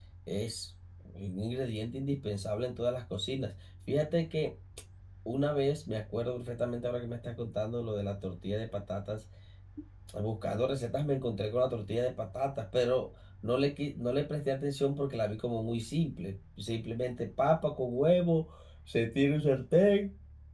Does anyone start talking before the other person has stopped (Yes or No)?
No